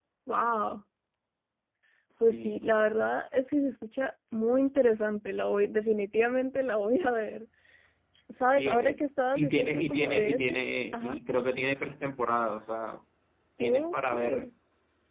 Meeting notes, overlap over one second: present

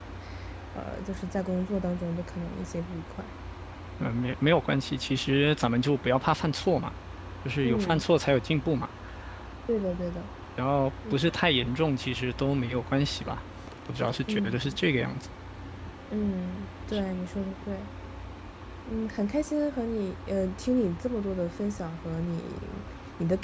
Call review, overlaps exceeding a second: none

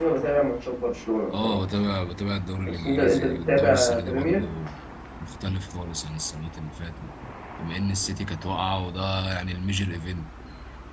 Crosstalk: present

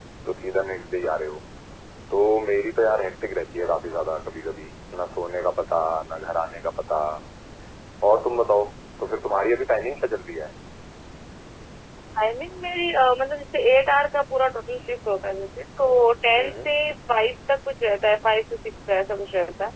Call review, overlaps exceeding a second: none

